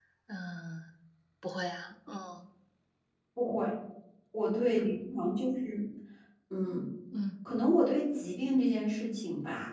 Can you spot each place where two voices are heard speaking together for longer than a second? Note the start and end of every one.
none

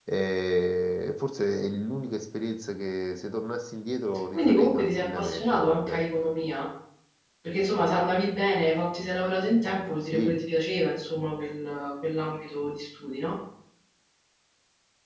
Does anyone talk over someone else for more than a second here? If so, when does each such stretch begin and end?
4.3-6.0

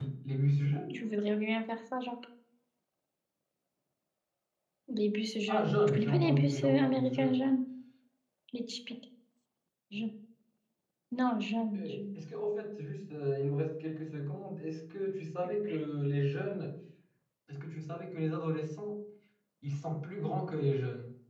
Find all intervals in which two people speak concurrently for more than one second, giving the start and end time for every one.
5.5-7.5

